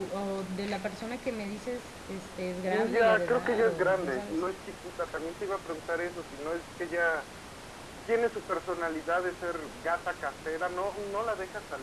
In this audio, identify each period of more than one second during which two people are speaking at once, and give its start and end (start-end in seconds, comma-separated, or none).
2.6-4.4